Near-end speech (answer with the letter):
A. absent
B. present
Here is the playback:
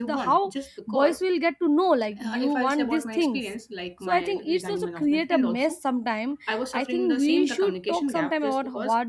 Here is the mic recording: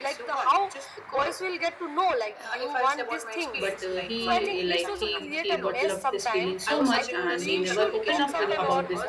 B